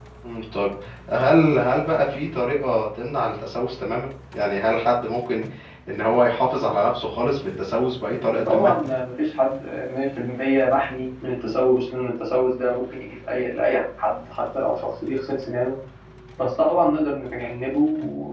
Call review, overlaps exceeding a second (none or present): none